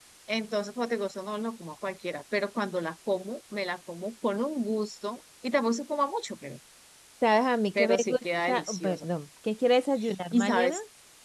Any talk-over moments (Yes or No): Yes